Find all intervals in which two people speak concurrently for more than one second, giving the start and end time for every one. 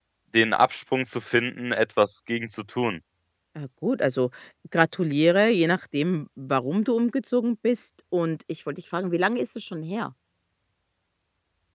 none

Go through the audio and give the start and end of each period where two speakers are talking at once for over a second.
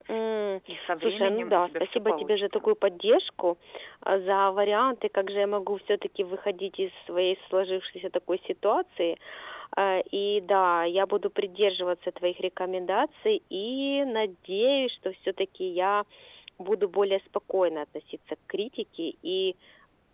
0.7-2.7

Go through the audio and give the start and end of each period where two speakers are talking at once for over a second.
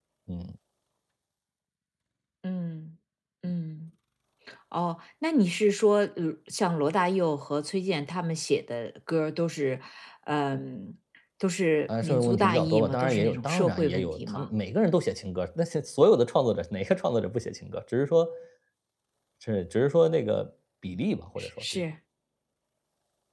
11.9-14.5

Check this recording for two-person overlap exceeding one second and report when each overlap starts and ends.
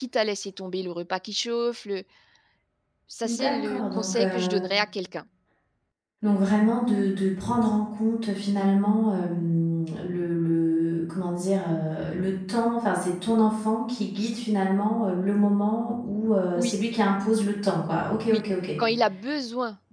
3.2-4.6

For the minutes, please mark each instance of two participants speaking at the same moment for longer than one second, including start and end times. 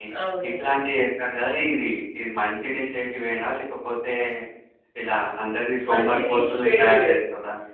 5.9-7.1

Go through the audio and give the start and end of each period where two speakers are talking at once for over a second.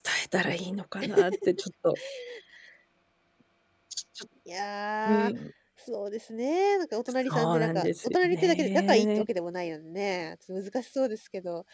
7.3-9.2

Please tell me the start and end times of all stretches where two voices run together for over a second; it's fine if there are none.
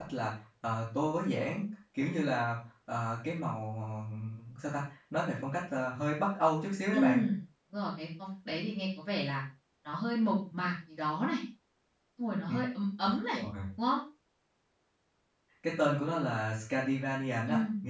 none

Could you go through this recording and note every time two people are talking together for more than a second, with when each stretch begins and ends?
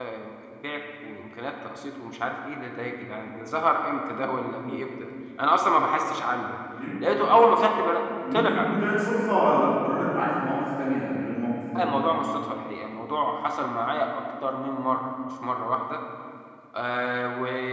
none

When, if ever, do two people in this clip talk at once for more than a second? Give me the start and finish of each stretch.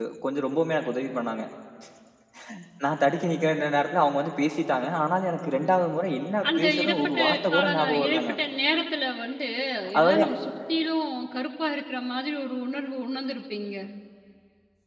6.6-8.3

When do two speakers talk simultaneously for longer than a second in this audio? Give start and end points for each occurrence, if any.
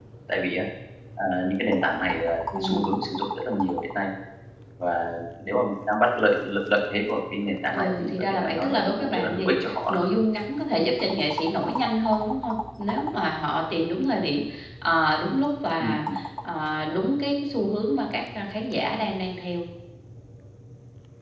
7.7-10.0

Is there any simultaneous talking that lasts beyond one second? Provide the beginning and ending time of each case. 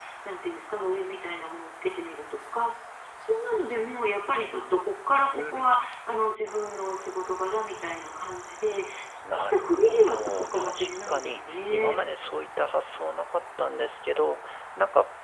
9.3-12.0

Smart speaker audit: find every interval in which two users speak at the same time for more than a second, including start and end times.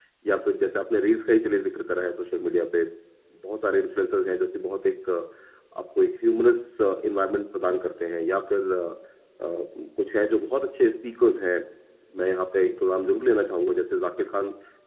none

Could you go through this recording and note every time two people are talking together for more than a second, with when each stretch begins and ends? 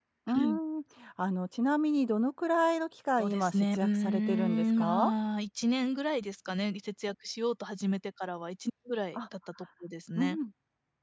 3.2-5.1

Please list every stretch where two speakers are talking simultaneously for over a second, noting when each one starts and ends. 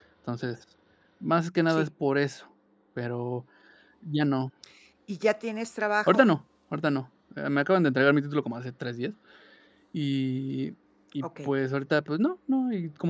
none

